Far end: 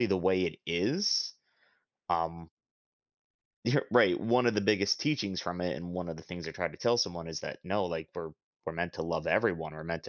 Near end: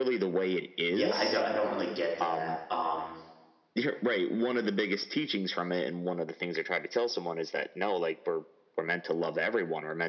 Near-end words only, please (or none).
Yeah, I don't I don't really get that, um